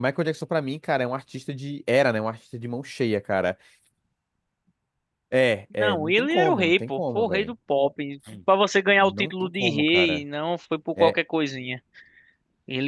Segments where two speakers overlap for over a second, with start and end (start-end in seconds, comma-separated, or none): 5.8-7.5, 9.0-10.2